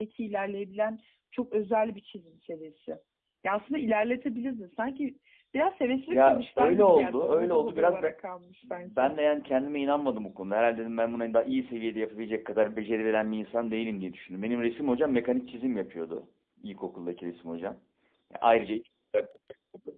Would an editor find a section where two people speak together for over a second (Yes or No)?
Yes